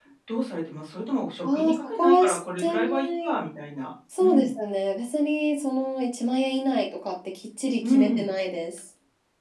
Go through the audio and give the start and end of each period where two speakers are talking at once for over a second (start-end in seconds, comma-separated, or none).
1.5-3.3